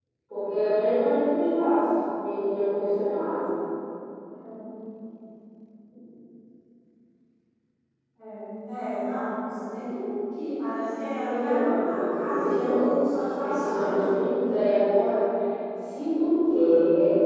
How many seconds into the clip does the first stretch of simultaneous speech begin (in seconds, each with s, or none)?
11.2 s